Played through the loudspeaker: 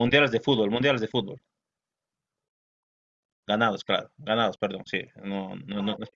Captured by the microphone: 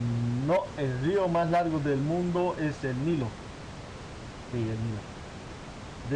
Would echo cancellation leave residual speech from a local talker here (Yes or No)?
Yes